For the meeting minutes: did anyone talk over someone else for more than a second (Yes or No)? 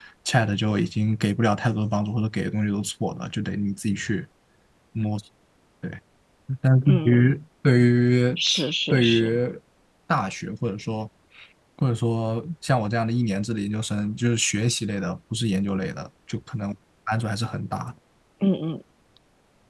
No